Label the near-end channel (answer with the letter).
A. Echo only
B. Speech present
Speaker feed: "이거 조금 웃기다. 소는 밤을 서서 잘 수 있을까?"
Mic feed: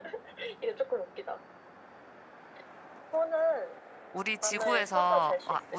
B